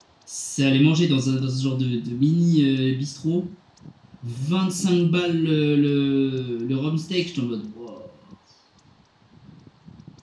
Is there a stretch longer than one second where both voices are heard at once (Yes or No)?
No